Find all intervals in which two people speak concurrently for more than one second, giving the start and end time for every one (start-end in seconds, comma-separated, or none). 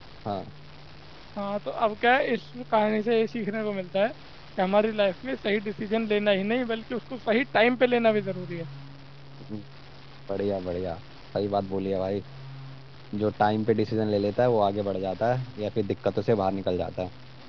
none